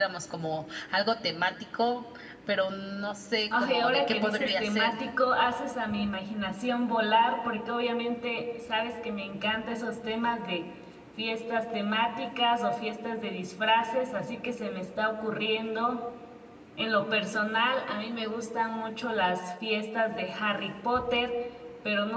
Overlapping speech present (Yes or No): Yes